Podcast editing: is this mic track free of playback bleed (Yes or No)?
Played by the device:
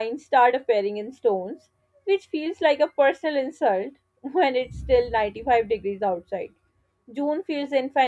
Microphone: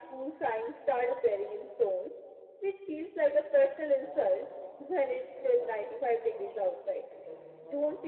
No